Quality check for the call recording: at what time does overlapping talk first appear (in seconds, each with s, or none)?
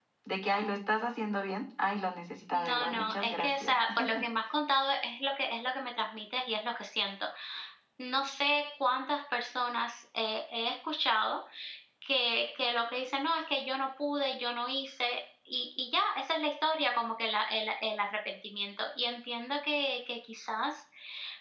2.5 s